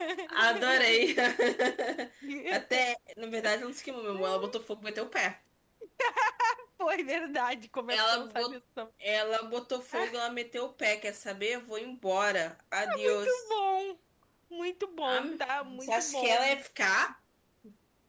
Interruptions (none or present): present